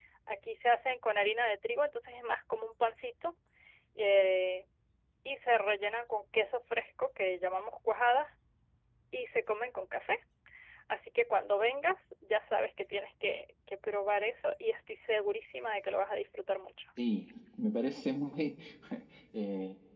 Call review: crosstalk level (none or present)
none